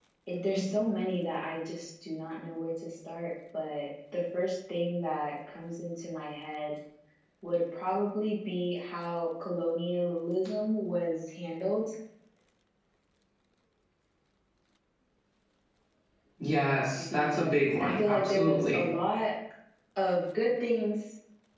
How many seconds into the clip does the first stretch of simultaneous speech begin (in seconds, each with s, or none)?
17.1 s